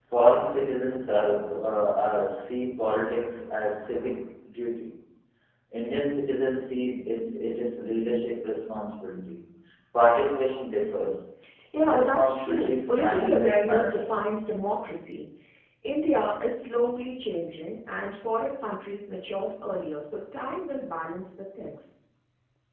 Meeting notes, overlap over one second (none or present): present